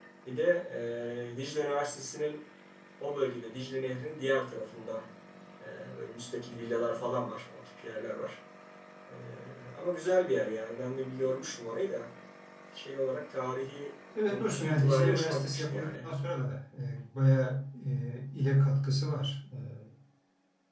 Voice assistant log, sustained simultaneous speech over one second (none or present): present